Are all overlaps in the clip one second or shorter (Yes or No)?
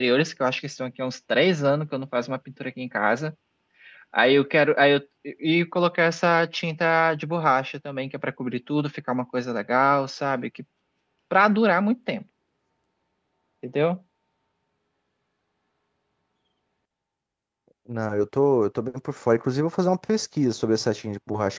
Yes